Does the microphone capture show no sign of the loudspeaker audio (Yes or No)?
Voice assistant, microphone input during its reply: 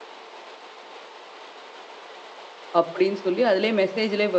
Yes